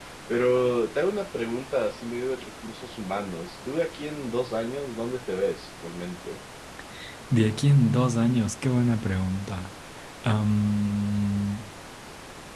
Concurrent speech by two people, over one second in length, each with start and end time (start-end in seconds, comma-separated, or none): none